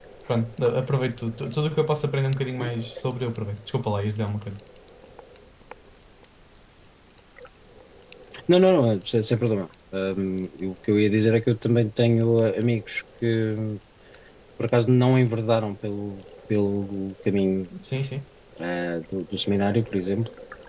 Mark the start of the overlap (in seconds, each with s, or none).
none